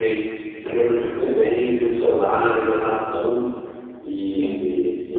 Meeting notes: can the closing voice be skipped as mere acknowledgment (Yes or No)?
No